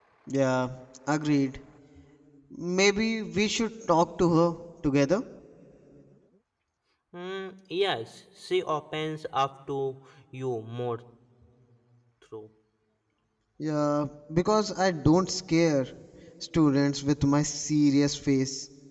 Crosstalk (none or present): none